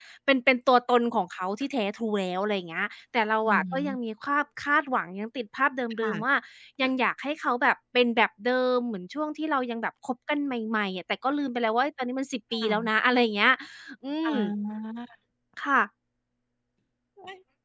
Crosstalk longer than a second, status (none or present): none